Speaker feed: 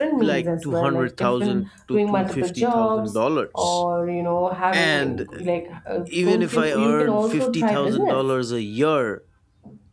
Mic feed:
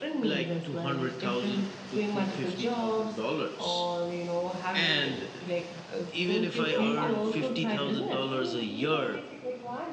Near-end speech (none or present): present